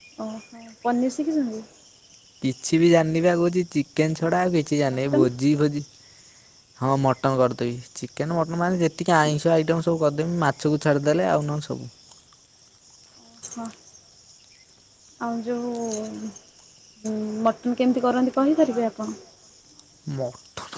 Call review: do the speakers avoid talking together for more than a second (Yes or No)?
Yes